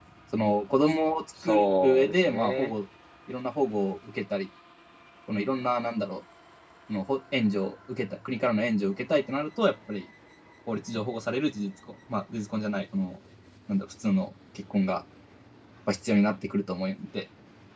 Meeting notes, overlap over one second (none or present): present